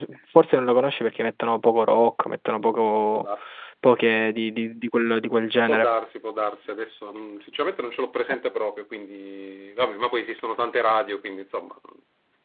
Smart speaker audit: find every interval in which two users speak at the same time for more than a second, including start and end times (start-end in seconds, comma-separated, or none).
none